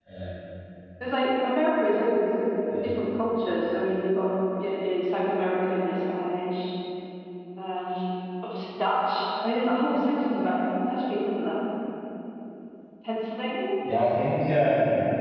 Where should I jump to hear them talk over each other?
none

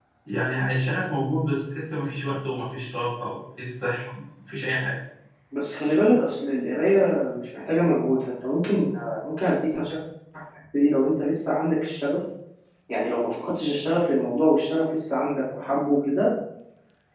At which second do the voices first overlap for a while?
none

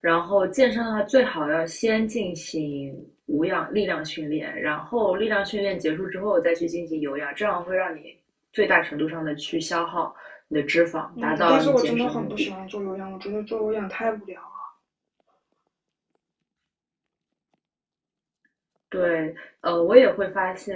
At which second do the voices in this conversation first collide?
11 s

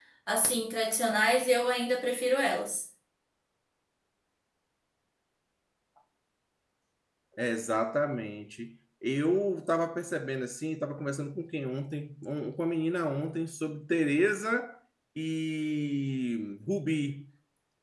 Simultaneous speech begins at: none

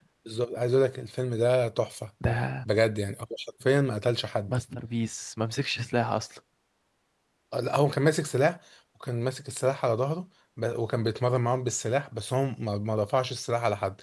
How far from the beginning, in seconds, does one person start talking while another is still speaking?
none

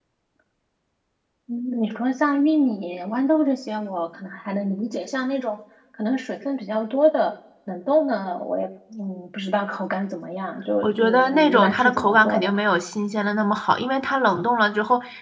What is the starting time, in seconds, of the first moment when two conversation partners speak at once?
11 s

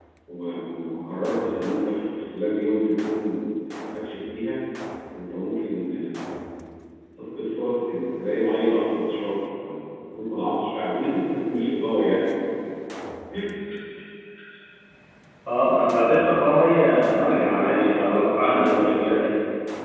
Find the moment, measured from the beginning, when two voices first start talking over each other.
17 s

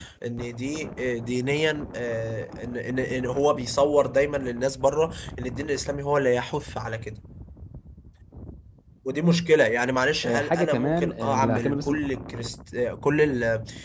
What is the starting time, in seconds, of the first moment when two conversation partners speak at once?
10 s

